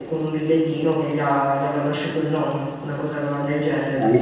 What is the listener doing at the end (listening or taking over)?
taking over